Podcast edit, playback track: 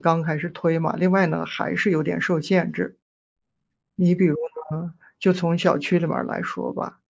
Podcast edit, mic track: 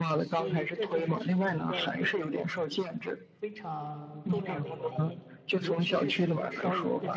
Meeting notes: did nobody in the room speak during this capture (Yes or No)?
No